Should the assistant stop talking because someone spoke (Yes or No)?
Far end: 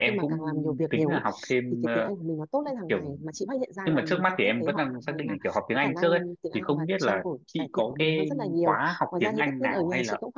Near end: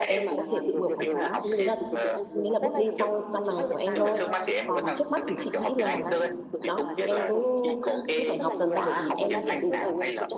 Yes